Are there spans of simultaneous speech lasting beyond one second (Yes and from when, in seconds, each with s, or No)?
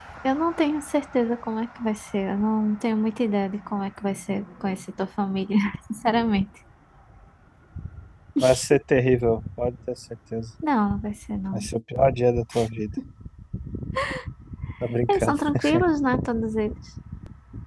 No